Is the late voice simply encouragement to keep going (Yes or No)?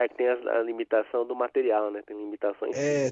No